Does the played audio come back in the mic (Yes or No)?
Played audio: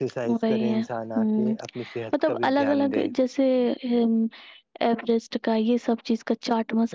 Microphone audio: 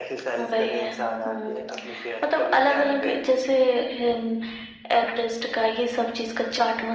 Yes